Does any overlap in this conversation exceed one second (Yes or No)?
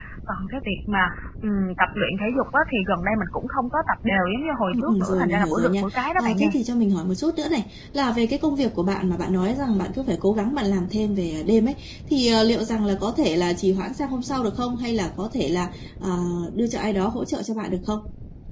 Yes